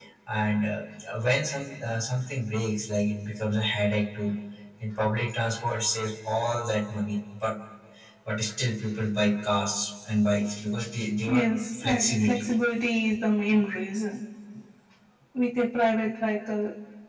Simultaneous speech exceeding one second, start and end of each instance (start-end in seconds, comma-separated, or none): 11.3-12.5